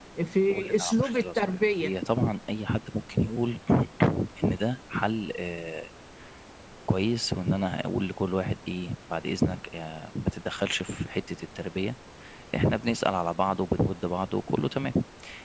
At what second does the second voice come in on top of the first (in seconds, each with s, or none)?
0.5 s